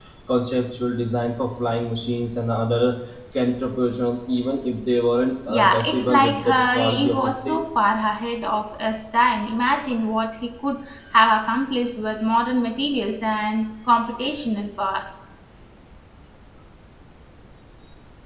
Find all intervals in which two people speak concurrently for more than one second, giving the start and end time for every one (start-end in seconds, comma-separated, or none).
5.5-7.6